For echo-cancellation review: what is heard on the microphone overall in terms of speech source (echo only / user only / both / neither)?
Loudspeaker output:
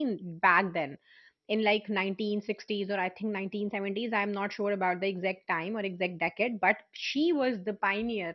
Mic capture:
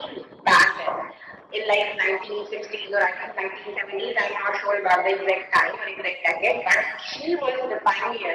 echo only